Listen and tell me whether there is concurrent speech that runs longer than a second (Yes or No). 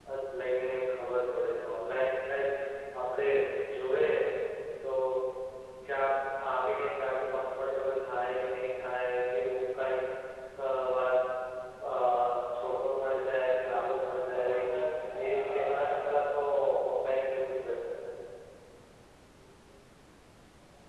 Yes